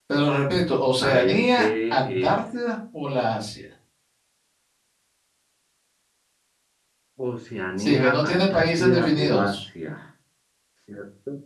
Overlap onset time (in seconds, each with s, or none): 1.0 s